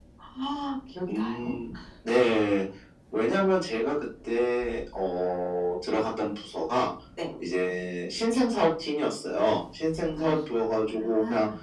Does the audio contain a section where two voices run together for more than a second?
No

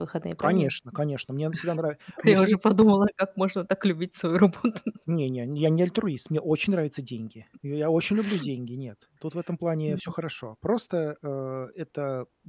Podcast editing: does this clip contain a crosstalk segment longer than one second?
No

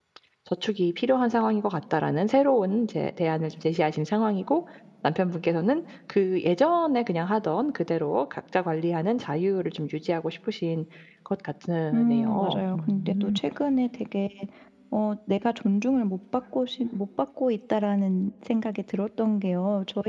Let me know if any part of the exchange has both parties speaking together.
Yes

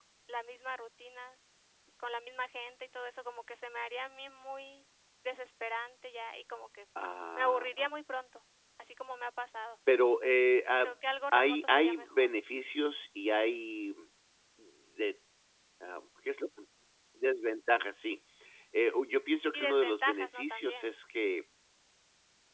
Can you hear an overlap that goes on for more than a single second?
Yes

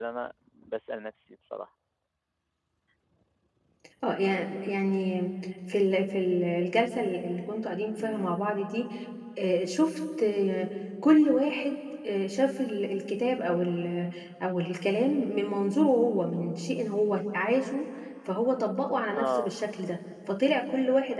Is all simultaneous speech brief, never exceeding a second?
Yes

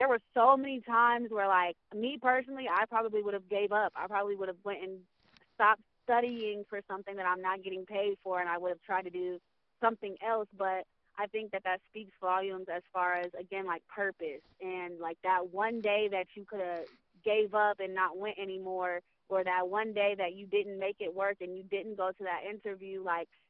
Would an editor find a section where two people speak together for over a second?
No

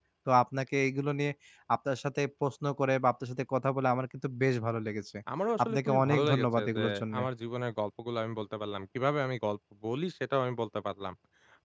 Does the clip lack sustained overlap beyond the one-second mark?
No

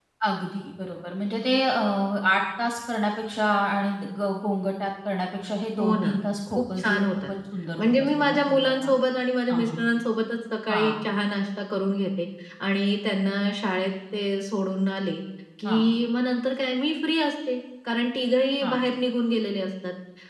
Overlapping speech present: Yes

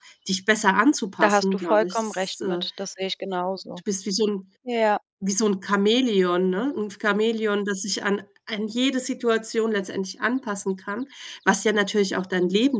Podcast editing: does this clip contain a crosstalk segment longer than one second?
Yes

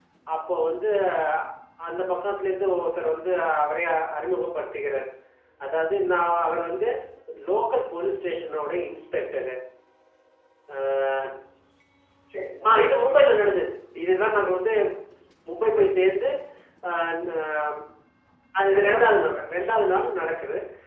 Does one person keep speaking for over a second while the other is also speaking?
Yes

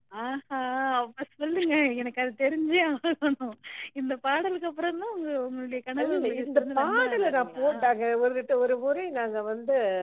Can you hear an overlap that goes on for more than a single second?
Yes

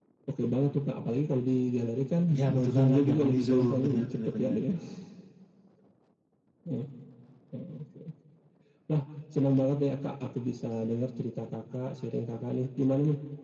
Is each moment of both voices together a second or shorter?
No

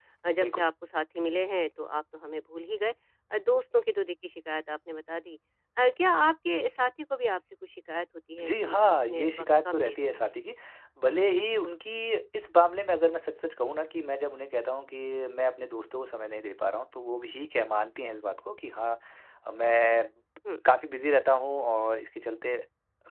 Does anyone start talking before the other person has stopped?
Yes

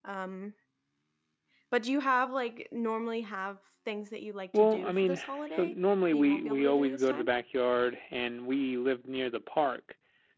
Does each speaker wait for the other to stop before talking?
No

